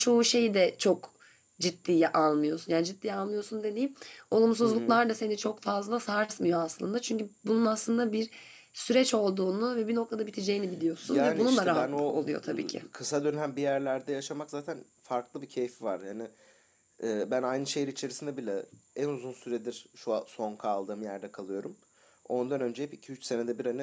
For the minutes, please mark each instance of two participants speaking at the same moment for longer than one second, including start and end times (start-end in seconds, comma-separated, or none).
11.0-12.8